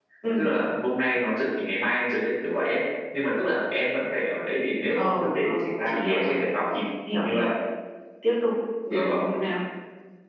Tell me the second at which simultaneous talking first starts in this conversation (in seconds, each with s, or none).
5.0 s